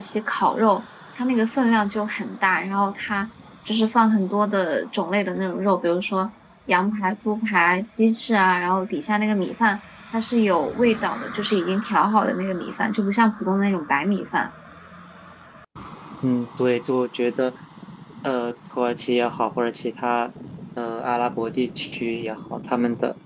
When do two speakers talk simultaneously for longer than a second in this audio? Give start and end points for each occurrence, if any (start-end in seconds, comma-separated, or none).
none